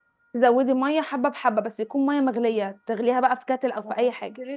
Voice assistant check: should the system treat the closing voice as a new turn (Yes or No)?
Yes